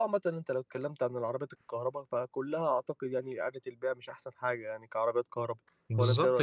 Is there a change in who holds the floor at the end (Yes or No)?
Yes